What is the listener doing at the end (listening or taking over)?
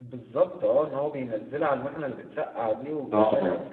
taking over